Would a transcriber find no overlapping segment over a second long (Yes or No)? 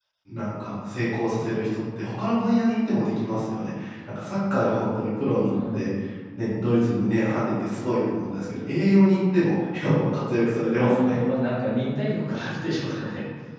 Yes